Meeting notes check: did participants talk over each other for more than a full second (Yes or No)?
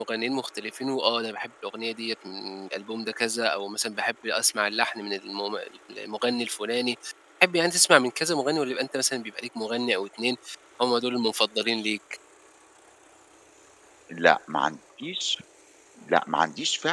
No